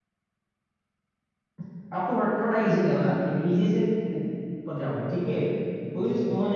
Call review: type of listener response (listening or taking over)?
listening